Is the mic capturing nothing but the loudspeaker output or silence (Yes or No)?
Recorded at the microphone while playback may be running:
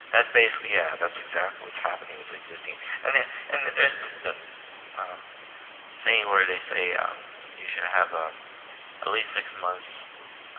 Yes